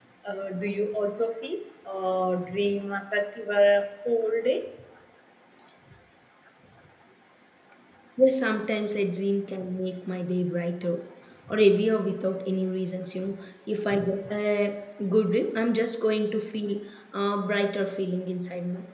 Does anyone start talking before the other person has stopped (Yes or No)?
No